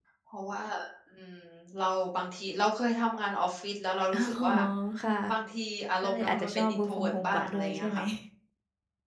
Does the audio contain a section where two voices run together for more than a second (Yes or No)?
Yes